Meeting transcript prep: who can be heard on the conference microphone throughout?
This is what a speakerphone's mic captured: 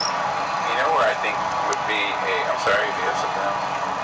echo only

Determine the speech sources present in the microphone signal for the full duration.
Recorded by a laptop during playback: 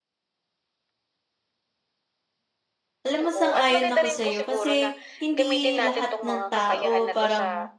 both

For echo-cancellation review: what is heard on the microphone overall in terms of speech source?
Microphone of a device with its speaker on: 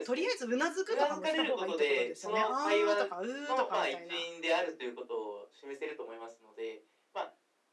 both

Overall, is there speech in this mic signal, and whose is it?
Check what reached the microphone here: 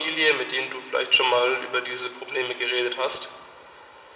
echo only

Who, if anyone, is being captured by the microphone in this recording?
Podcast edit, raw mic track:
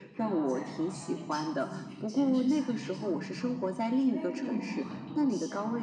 both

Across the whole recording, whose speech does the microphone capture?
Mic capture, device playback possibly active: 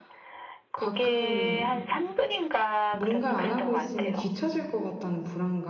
both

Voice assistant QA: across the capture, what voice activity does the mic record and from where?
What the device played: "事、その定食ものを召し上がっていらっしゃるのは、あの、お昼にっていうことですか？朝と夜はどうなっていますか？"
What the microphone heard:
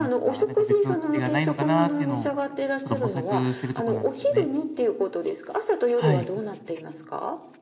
both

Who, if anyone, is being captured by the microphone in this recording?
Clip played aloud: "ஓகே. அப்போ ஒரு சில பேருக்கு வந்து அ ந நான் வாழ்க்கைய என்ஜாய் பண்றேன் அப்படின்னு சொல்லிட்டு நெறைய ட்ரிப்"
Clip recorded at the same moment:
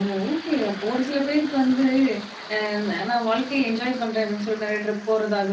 echo only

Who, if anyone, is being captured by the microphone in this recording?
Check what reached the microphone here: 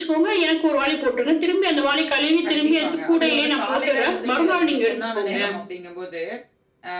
both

